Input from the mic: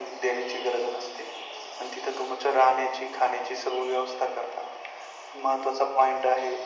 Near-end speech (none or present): none